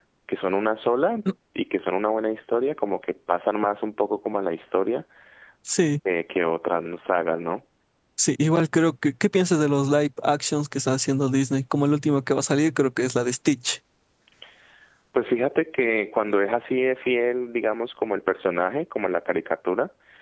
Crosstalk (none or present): none